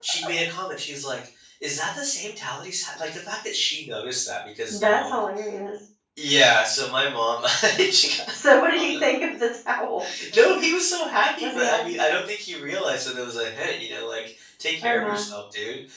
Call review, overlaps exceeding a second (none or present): none